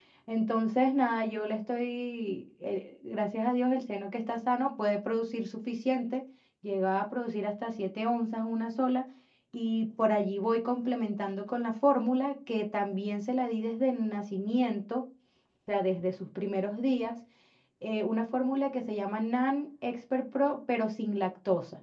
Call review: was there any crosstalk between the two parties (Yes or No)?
No